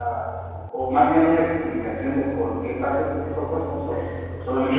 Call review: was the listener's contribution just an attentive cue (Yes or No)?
No